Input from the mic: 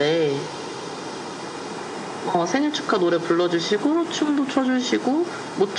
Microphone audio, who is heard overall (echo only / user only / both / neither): echo only